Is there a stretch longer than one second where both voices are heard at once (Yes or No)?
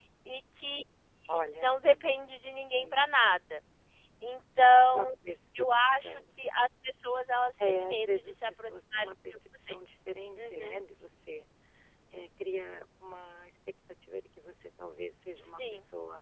Yes